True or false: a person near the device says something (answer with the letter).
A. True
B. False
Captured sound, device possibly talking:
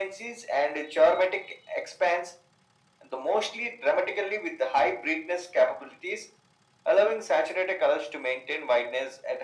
B